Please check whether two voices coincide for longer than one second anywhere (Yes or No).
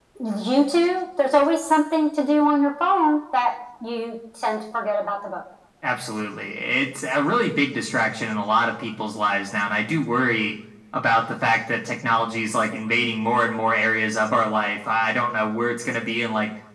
No